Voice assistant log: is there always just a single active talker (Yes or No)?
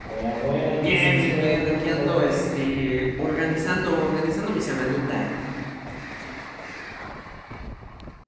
No